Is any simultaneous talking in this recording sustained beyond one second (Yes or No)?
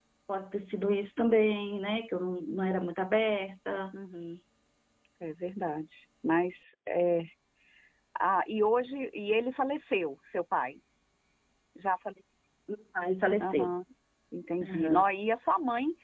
No